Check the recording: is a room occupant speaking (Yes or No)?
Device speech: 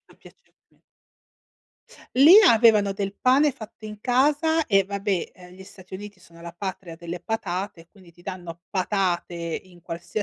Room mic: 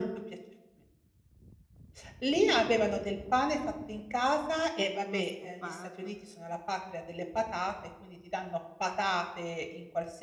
Yes